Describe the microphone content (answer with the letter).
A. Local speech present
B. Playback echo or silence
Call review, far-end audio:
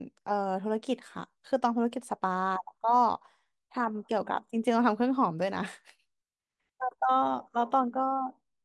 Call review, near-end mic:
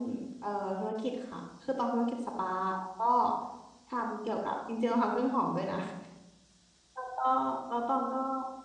B